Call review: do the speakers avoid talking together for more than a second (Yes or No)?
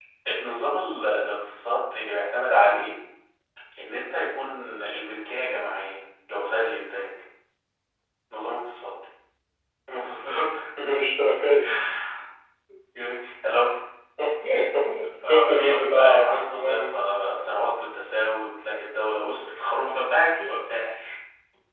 No